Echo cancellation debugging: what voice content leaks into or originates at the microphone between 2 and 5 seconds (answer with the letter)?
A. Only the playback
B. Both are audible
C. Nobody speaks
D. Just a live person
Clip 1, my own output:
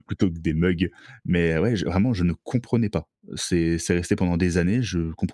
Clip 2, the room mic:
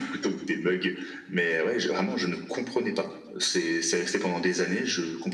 A